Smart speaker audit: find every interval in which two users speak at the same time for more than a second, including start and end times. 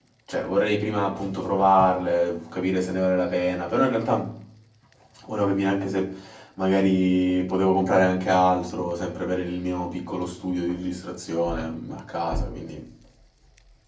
none

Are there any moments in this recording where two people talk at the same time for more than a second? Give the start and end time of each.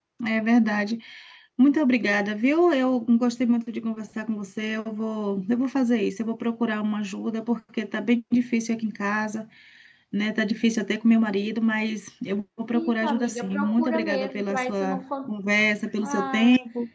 12.7-15.0

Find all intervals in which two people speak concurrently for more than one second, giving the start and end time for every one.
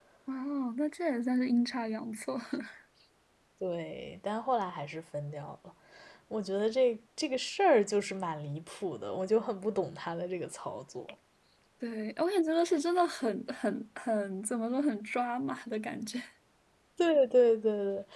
none

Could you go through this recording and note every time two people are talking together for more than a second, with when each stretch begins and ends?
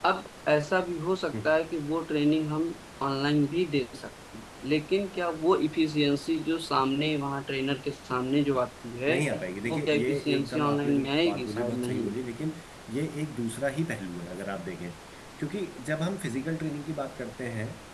9.7-12.1

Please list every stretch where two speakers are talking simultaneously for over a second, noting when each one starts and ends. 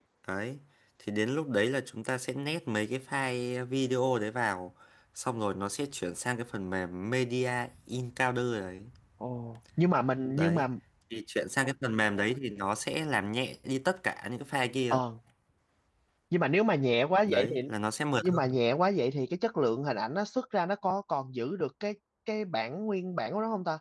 none

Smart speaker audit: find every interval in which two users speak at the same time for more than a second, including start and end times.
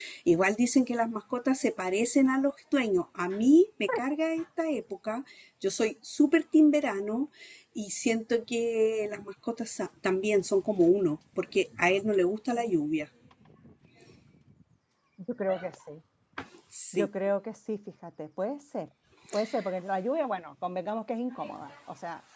none

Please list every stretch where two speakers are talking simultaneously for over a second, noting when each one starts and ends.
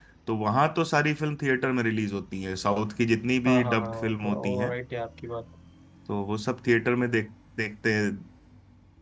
3.5-4.7

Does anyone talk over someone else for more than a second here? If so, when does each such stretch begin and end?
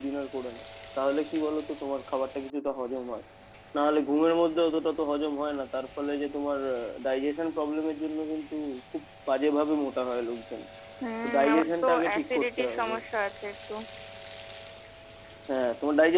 11.2-12.9

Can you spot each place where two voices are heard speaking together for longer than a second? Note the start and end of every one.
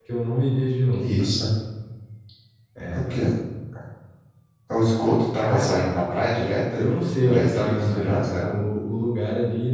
7.2-8.5

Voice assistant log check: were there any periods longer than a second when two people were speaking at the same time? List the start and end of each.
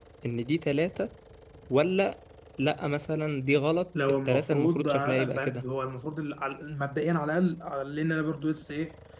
4.0-5.6

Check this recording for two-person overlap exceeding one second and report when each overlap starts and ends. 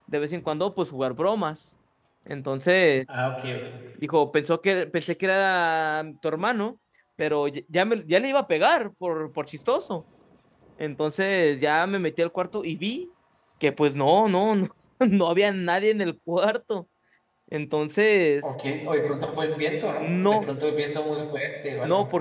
none

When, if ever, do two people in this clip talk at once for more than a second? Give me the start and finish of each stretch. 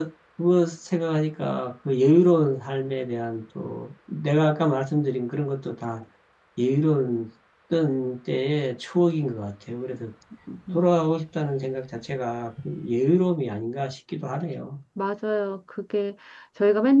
none

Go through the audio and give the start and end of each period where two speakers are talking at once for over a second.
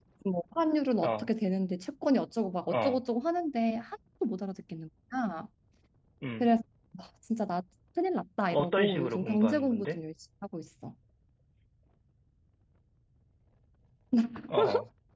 8.5-10.0

